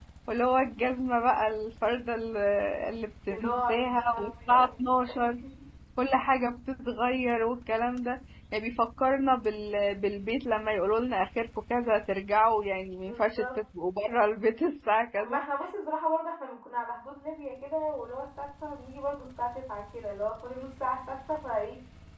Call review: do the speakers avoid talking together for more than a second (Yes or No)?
No